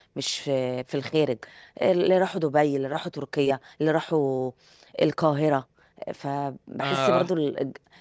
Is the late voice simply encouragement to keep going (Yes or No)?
Yes